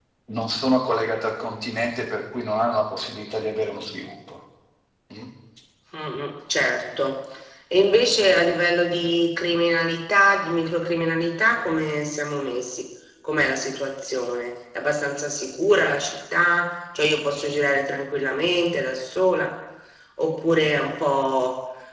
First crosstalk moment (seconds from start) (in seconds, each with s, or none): none